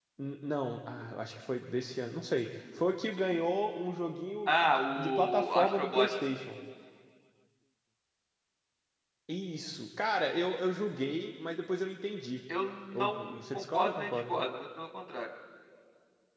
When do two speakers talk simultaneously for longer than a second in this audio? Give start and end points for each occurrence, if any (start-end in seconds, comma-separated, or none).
4.5-6.1, 12.9-14.3